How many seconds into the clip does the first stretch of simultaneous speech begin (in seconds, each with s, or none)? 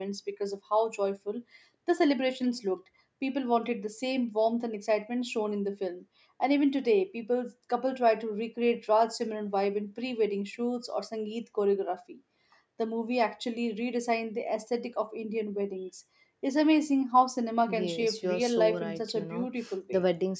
17.7 s